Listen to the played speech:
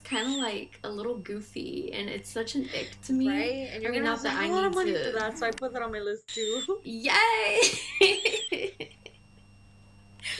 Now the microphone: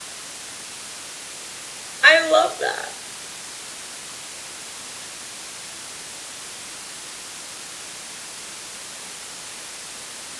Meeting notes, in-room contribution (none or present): present